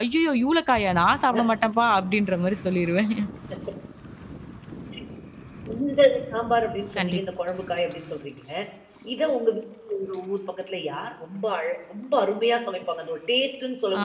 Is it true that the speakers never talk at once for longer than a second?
Yes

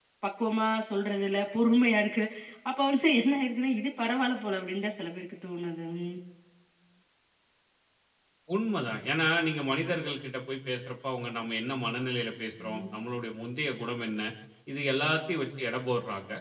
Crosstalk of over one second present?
No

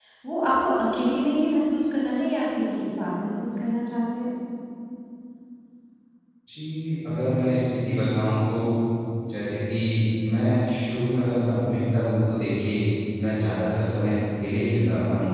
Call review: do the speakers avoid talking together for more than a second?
Yes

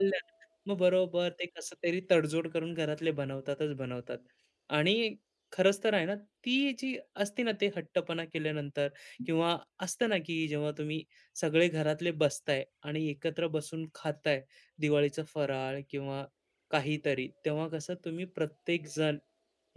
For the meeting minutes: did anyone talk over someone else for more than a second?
No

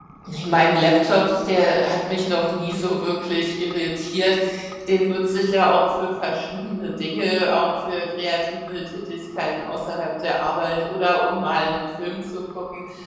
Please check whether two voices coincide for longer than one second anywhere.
No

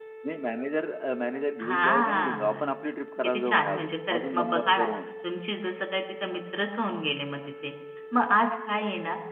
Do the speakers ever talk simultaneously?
Yes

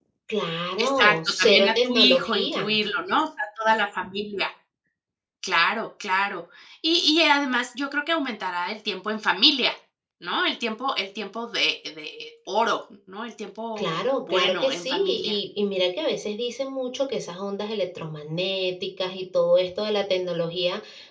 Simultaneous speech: Yes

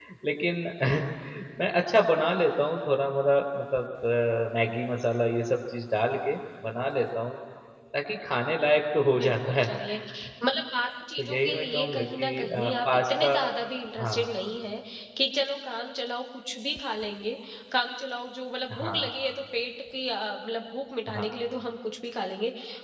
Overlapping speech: Yes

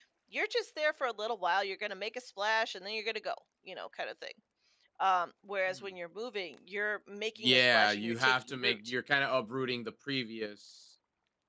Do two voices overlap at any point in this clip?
Yes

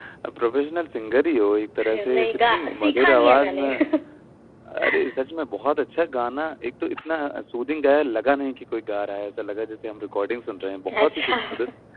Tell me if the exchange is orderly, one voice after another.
No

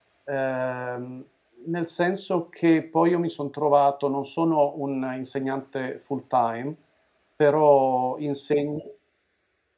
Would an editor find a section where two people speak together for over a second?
No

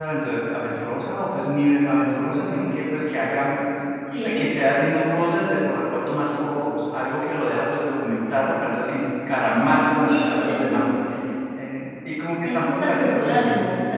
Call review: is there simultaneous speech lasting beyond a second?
Yes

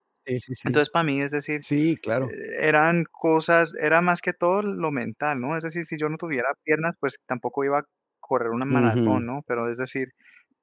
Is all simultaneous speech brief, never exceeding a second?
Yes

